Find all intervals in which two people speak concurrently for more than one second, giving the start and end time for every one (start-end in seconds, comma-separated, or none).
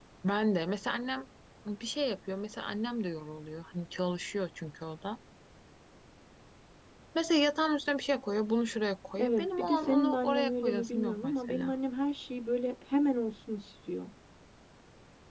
9.2-11.7